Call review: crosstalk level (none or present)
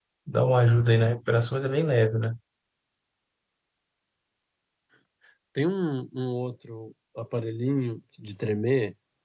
none